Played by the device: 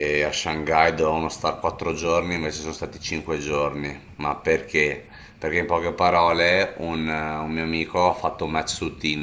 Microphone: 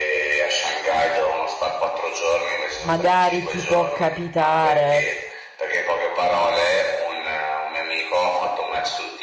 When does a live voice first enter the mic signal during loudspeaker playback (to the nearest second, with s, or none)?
3 s